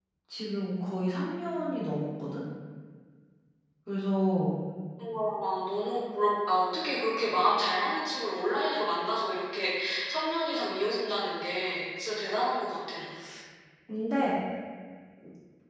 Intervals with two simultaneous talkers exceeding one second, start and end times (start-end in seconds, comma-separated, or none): none